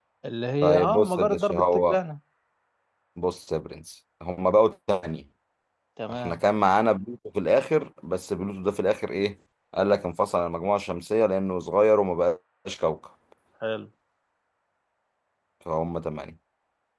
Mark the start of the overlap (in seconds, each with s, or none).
0.6 s